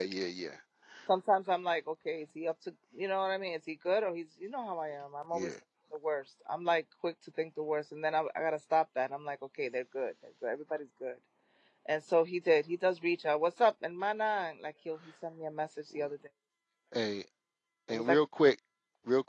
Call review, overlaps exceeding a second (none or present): none